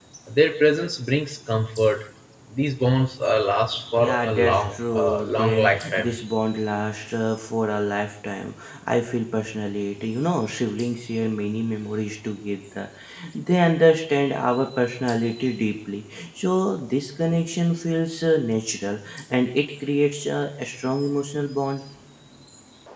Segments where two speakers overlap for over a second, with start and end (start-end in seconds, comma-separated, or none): 4.0-6.2